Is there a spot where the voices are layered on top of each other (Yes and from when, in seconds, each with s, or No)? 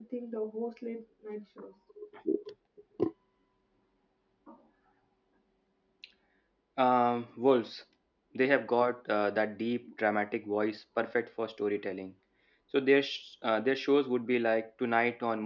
No